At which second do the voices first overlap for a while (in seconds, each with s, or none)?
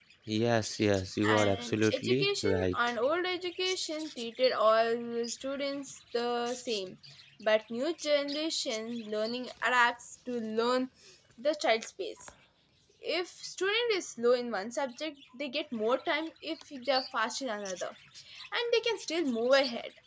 1.3 s